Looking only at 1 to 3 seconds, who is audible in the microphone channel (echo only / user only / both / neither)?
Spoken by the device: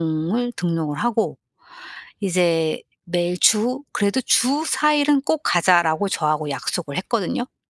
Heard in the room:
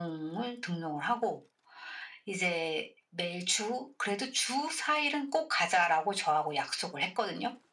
echo only